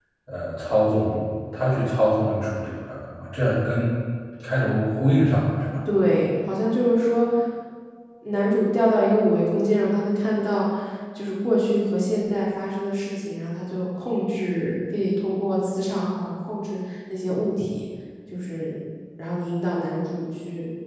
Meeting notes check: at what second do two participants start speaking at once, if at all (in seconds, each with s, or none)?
none